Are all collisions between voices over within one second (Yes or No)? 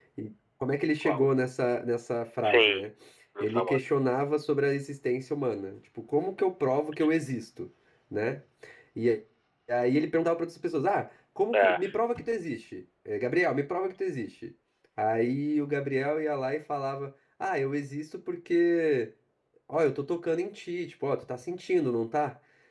Yes